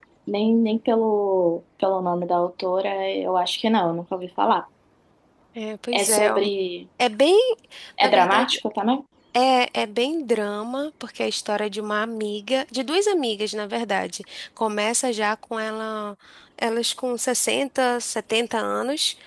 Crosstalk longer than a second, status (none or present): none